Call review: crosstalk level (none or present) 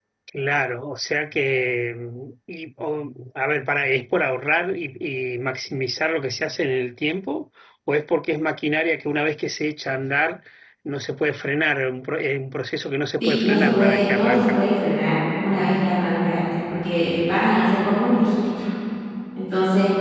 present